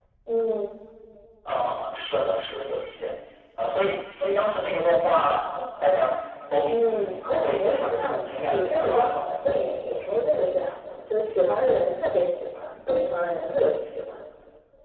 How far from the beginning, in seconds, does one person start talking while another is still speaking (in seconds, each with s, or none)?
6.6 s